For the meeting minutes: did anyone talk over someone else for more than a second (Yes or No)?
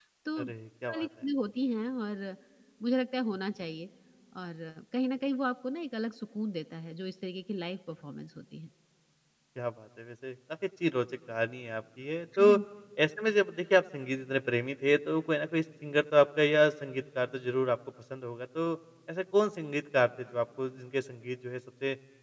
No